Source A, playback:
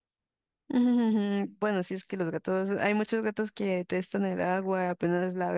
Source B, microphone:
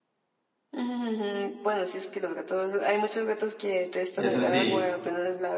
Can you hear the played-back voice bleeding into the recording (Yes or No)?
Yes